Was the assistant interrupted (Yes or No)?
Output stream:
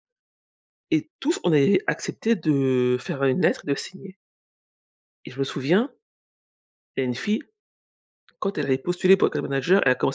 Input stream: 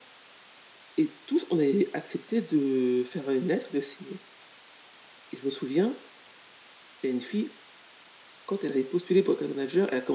No